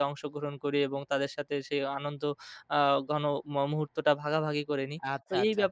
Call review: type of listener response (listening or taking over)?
taking over